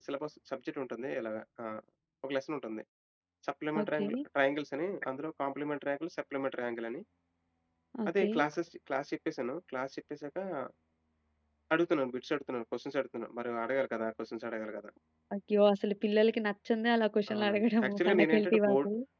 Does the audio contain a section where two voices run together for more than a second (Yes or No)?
Yes